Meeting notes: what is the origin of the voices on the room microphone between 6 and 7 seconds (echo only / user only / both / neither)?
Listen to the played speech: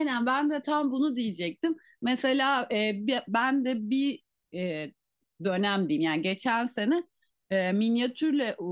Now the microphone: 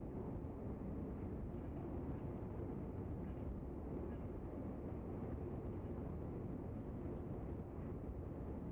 neither